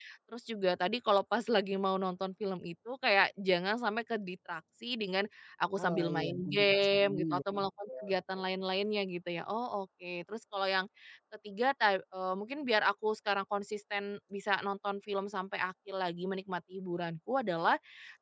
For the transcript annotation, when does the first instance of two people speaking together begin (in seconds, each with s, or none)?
5.8 s